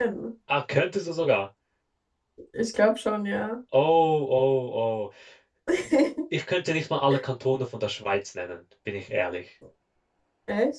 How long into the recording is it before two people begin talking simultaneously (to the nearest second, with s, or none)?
none